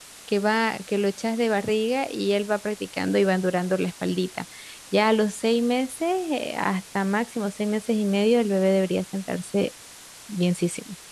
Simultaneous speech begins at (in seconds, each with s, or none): none